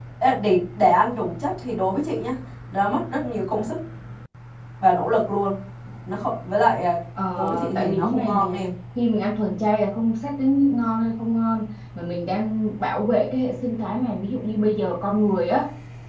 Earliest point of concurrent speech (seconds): 7.4 s

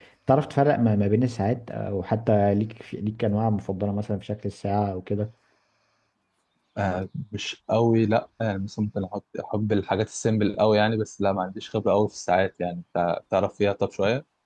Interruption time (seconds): none

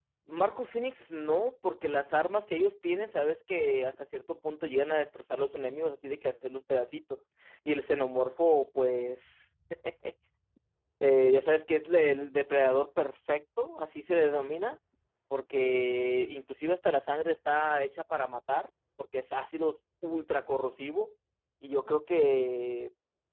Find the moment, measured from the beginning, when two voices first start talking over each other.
none

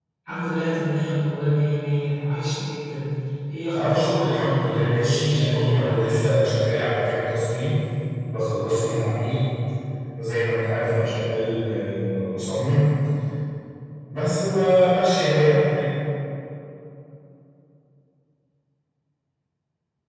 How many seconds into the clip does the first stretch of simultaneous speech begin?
3.8 s

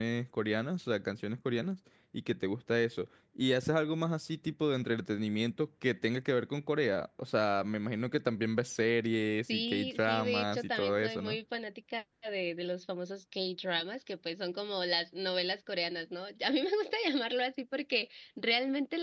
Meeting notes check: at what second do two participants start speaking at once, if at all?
9.5 s

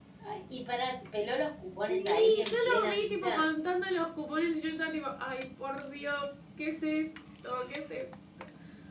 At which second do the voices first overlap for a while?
1.9 s

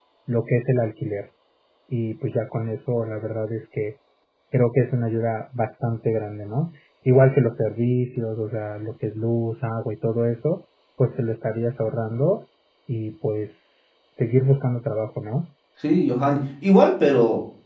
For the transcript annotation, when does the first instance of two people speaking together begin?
none

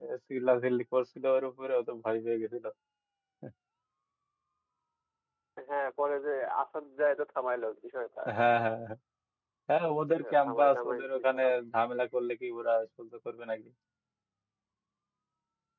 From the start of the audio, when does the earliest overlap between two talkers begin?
10.2 s

